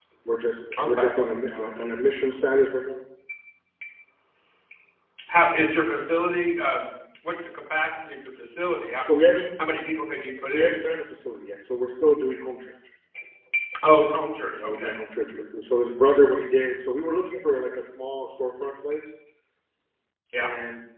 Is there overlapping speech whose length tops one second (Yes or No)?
No